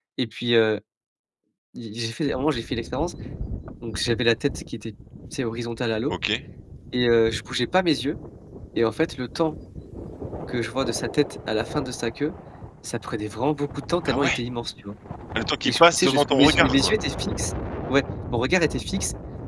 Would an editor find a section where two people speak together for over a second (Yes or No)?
Yes